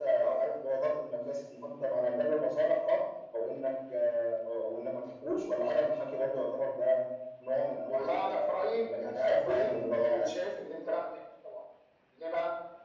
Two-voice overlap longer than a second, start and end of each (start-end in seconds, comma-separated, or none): 7.9-9.7